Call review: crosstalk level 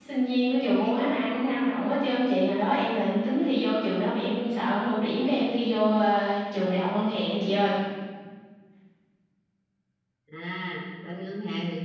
none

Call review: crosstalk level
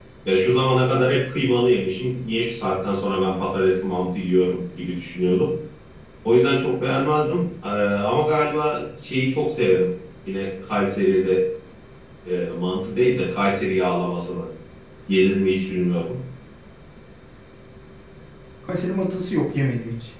none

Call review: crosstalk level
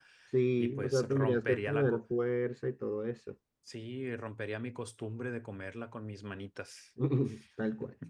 present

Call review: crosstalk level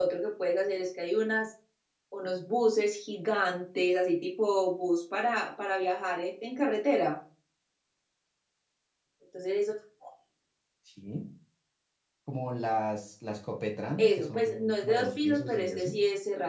present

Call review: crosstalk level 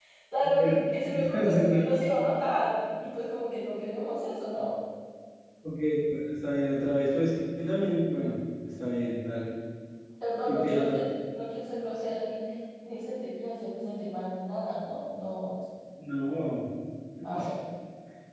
present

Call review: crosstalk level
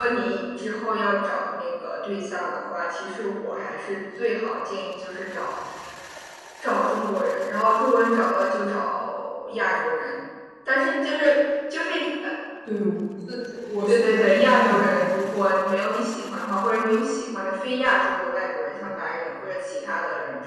present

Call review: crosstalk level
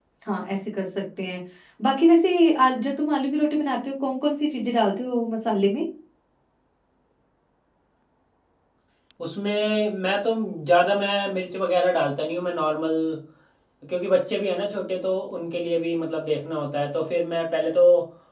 none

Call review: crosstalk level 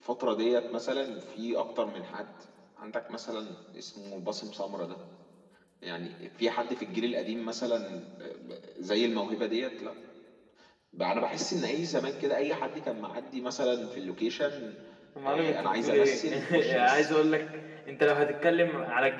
present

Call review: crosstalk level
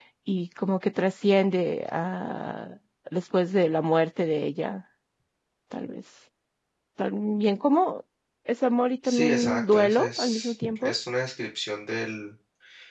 present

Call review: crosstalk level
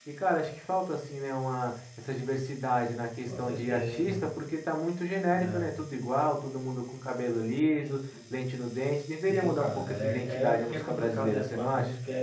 present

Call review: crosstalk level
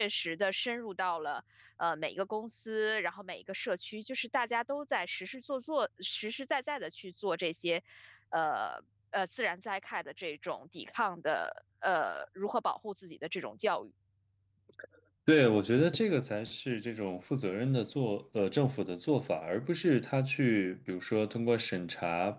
none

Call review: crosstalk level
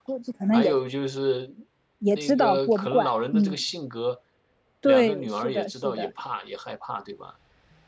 present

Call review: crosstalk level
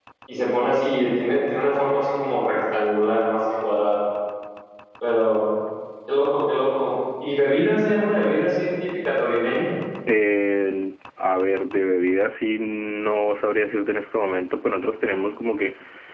none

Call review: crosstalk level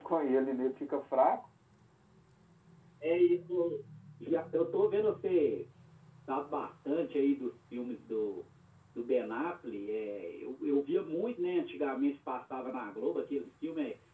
none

